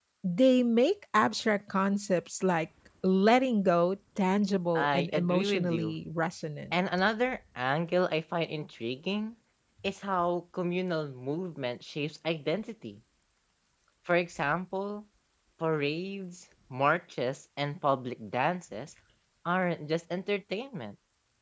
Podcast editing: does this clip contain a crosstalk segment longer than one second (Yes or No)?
Yes